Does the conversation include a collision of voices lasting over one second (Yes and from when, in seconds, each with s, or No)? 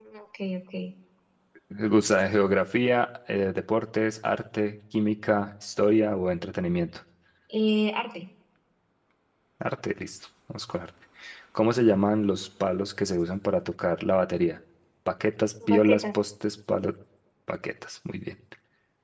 No